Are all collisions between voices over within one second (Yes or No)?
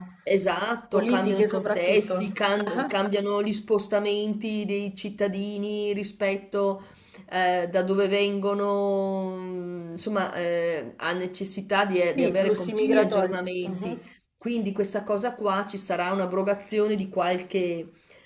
No